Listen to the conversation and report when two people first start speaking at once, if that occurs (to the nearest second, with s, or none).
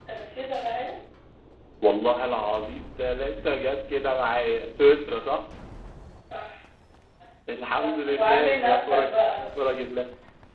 8 s